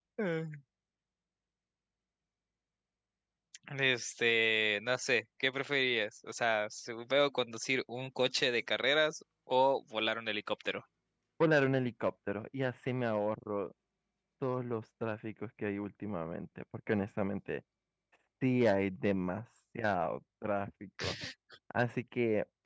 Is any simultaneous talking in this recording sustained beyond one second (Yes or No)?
No